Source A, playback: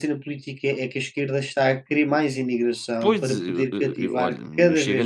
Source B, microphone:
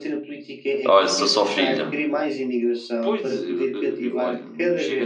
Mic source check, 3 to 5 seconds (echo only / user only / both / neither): echo only